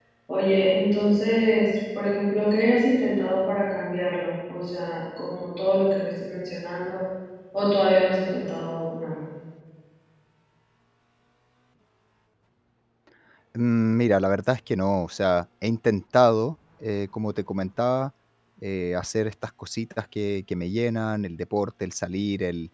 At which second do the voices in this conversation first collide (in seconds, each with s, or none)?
none